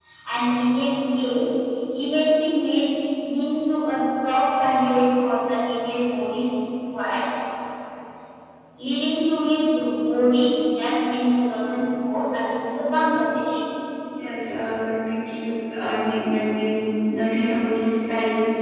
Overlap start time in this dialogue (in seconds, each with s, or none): none